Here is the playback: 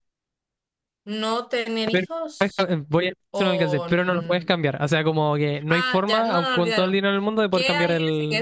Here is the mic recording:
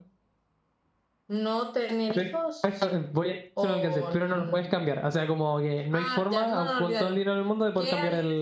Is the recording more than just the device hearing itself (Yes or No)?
No